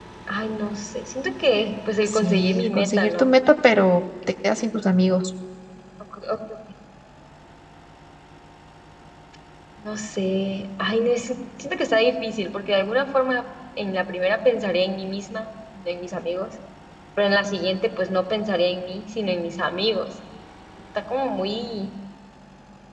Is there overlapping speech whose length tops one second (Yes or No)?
Yes